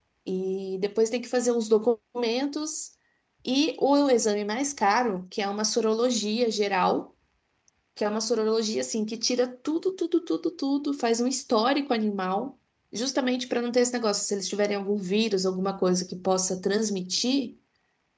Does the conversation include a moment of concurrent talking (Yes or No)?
No